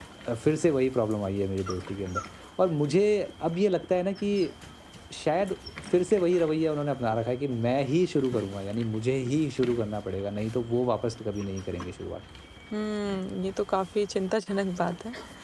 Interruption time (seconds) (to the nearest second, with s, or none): none